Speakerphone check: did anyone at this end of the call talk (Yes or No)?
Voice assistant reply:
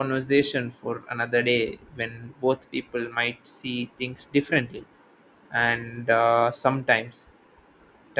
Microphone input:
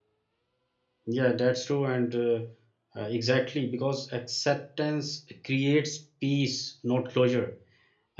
Yes